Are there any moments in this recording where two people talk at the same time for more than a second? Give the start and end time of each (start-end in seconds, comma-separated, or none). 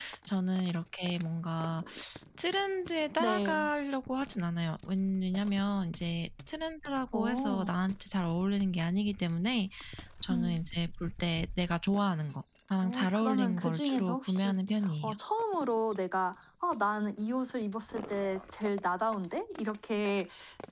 12.8-14.6